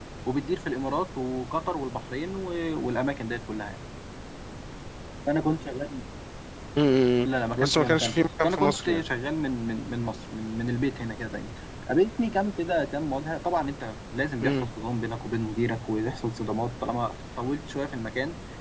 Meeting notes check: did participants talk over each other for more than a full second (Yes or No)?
Yes